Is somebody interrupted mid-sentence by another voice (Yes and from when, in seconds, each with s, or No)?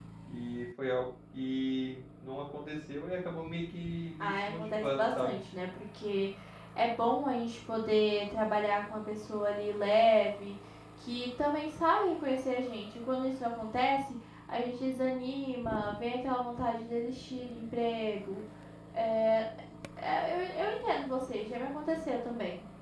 Yes, from 4.2 s